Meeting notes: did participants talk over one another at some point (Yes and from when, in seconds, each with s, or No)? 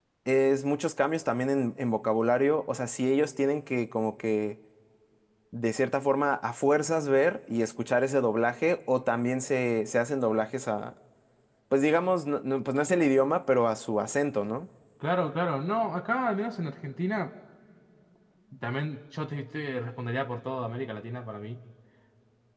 No